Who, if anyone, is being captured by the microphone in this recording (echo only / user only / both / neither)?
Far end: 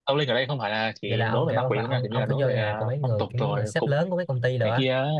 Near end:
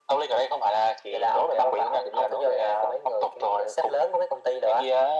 echo only